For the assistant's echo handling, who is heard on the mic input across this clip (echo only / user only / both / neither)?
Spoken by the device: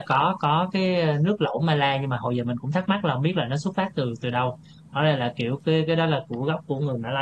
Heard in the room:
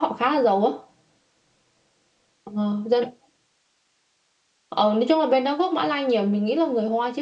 user only